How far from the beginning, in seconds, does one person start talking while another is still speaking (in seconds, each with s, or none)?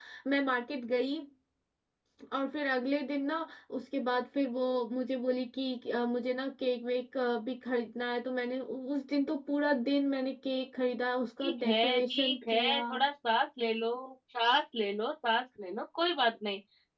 11.4 s